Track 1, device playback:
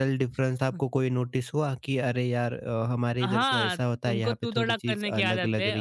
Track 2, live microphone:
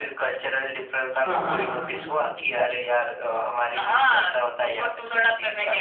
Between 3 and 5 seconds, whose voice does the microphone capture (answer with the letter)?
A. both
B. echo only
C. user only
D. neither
B